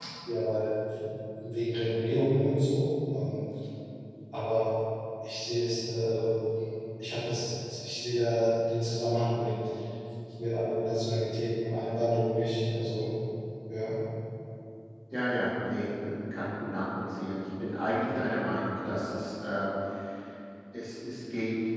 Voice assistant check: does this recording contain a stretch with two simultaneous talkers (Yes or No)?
No